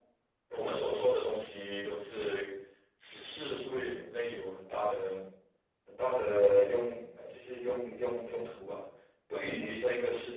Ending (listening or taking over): listening